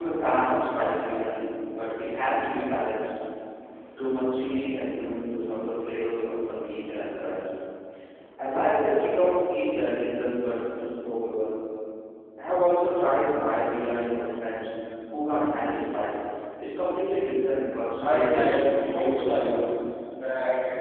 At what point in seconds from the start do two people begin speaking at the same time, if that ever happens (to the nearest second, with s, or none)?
18 s